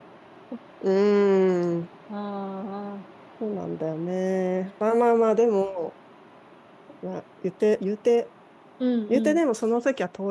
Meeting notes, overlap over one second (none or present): none